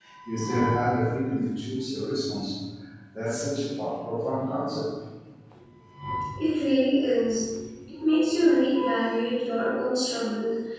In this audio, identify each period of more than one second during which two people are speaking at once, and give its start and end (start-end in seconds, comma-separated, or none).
none